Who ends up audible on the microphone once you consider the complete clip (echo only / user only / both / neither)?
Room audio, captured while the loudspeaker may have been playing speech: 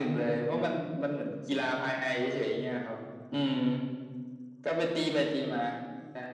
echo only